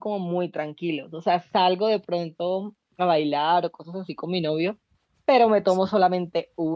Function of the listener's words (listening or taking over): listening